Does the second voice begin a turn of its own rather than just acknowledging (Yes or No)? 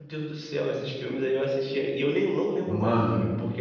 No